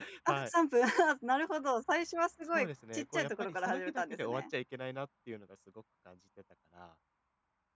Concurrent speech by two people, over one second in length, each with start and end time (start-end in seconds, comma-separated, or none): 2.4-4.4